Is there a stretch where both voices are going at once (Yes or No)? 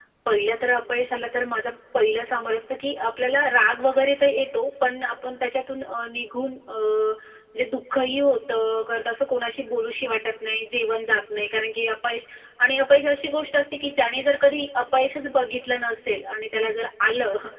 No